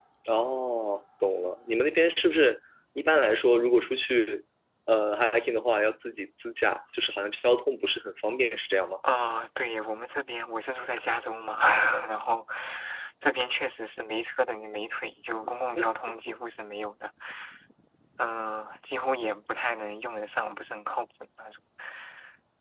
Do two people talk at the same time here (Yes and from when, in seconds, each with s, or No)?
No